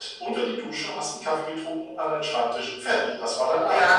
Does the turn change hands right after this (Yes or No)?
Yes